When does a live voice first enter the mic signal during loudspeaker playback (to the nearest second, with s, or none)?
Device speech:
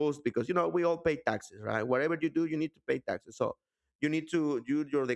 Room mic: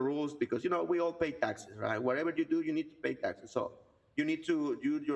none